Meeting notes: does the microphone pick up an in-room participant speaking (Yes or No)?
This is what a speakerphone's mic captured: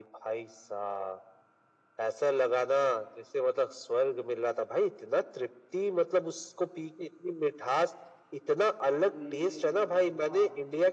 Yes